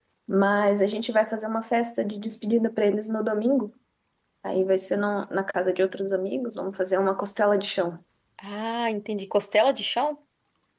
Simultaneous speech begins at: none

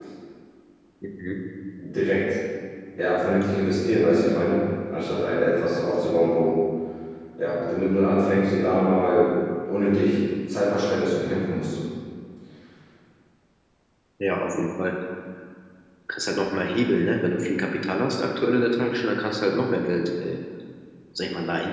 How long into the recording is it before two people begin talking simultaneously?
none

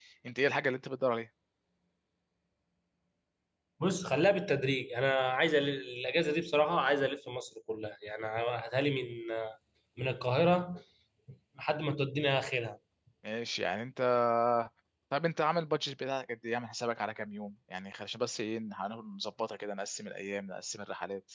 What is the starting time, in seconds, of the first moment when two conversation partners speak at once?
none

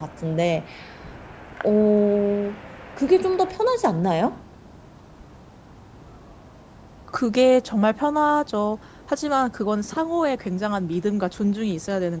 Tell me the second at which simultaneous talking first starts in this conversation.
none

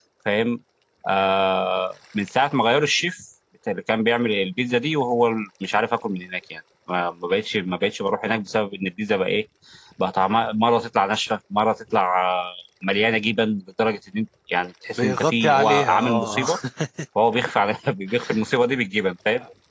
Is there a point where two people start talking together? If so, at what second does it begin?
15 s

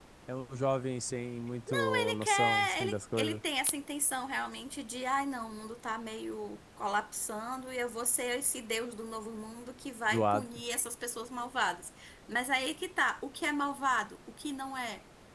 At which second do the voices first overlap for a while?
2 s

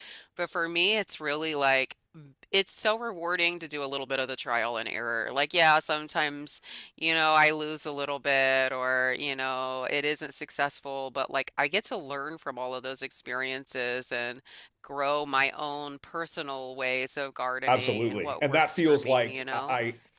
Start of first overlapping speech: 18 s

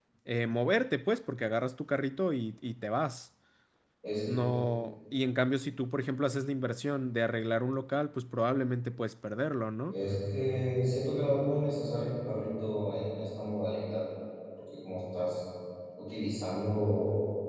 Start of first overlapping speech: none

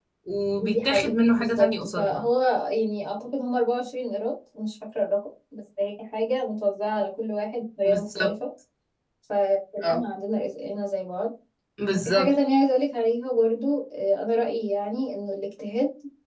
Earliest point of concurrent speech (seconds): 1 s

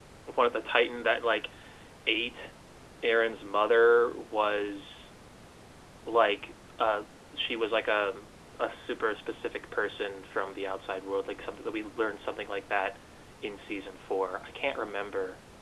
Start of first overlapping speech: none

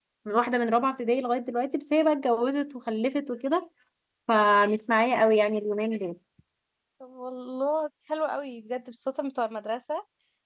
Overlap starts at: none

